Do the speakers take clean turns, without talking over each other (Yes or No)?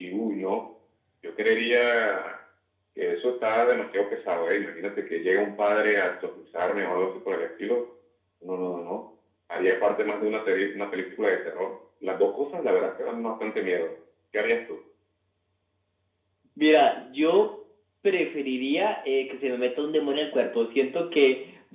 Yes